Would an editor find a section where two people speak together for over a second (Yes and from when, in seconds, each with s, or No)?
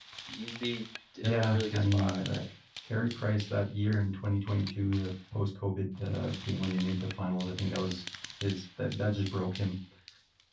Yes, from 1.2 s